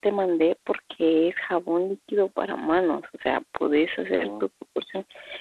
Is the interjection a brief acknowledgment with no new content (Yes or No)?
Yes